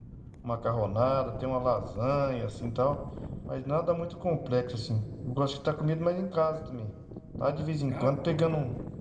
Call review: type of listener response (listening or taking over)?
listening